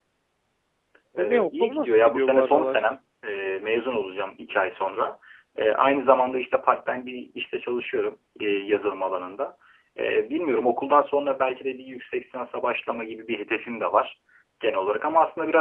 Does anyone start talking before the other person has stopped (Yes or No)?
Yes